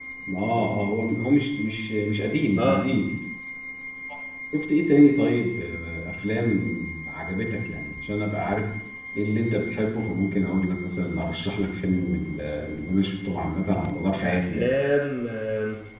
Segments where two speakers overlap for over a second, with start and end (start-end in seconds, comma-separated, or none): none